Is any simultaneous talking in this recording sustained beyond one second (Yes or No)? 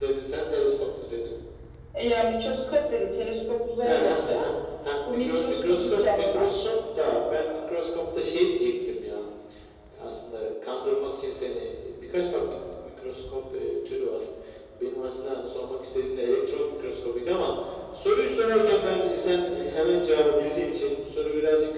Yes